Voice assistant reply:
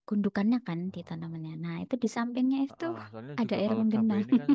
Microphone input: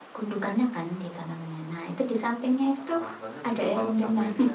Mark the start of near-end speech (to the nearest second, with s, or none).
none